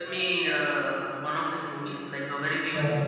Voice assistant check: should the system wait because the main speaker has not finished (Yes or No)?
No